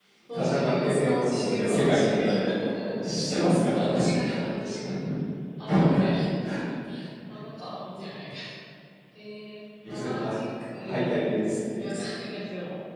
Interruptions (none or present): present